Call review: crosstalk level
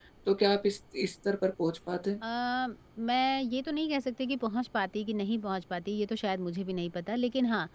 none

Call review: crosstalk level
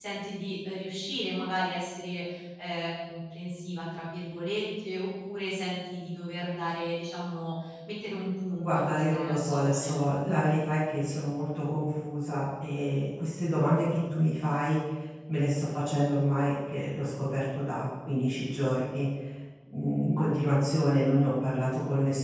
present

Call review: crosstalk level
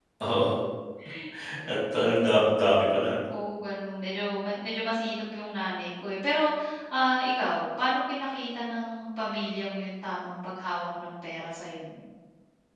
none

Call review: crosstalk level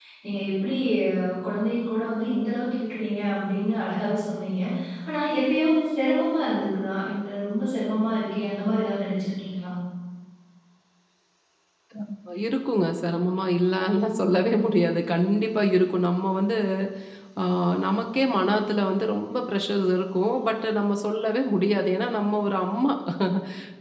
none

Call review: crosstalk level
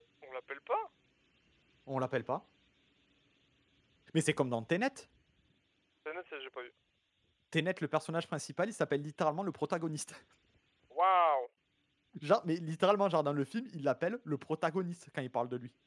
none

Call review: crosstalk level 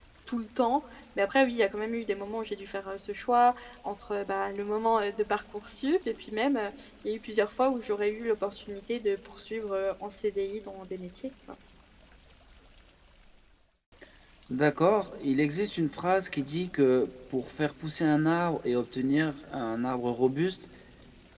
none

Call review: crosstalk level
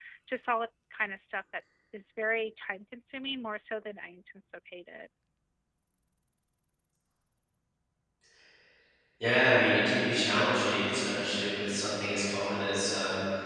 none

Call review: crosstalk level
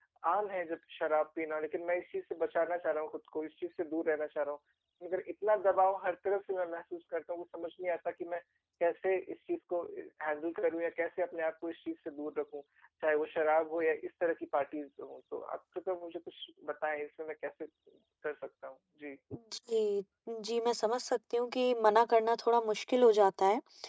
none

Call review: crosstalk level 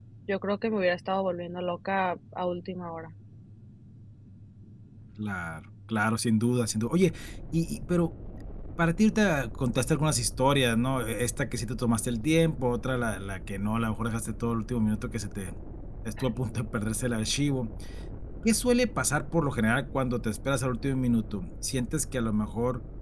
none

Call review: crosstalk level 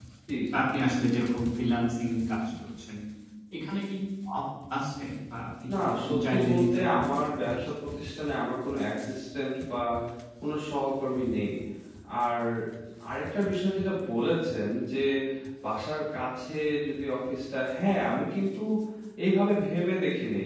present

